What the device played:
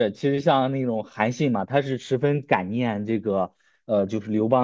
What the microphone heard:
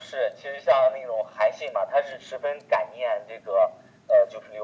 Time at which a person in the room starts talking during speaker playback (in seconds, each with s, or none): none